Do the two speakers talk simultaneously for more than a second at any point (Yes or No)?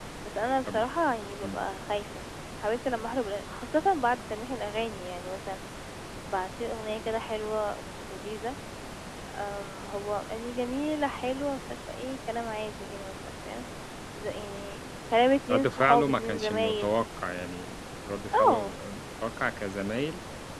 Yes